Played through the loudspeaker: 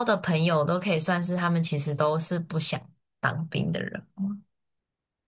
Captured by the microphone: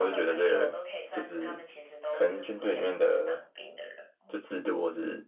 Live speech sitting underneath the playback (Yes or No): No